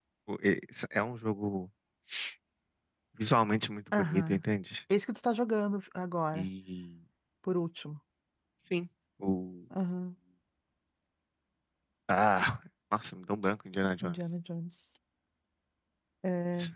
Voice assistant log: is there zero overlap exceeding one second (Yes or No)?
Yes